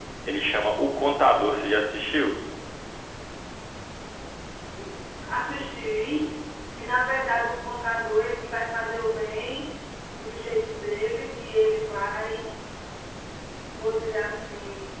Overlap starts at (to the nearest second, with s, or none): none